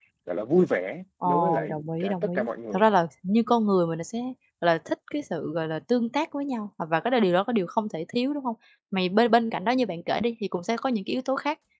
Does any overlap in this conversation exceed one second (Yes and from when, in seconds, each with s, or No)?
Yes, from 1.2 s